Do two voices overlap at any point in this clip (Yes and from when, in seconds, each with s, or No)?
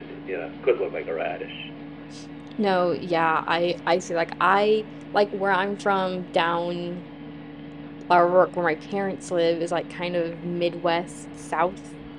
No